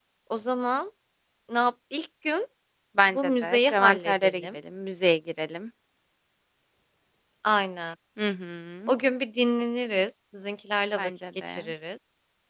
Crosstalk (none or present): present